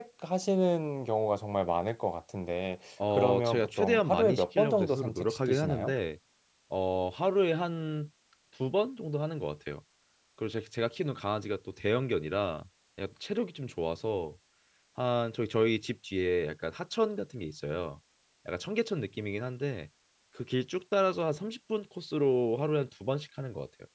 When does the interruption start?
3.0 s

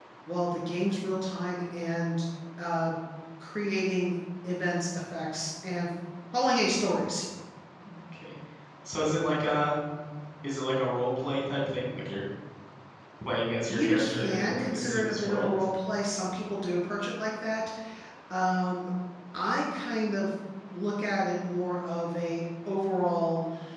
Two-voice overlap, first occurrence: 13.7 s

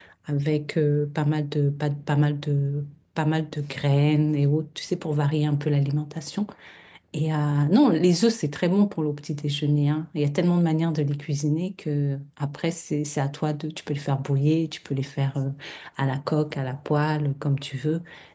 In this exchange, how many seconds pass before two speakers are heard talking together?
none

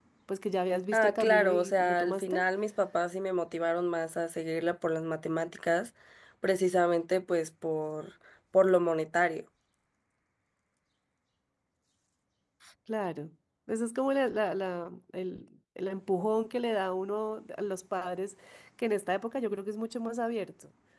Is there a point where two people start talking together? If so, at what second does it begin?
0.9 s

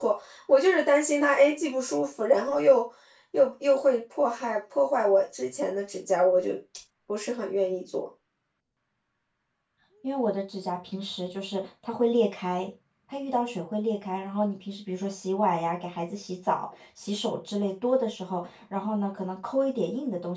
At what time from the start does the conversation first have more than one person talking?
none

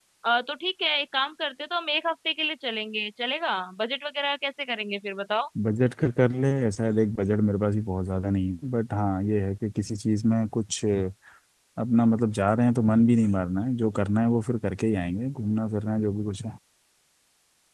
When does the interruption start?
none

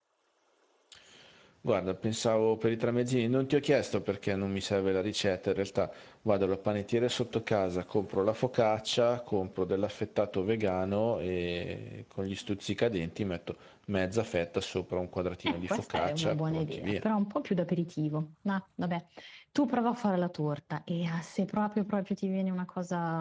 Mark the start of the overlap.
15.4 s

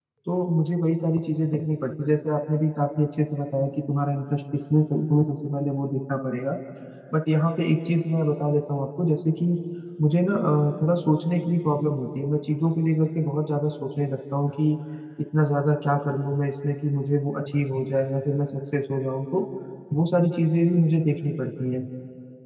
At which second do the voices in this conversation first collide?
none

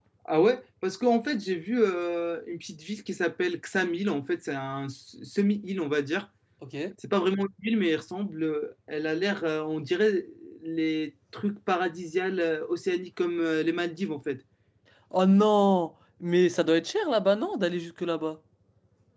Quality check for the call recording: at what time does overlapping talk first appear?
none

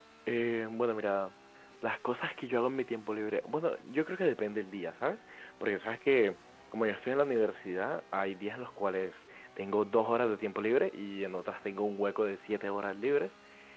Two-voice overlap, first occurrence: none

